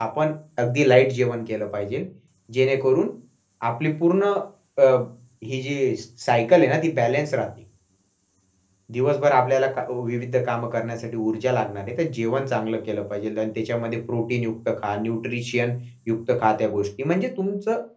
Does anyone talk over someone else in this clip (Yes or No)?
No